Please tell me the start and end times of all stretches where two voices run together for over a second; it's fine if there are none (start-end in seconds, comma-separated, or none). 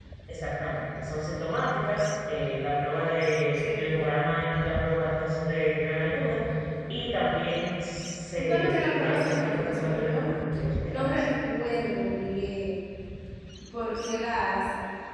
8.4-10.3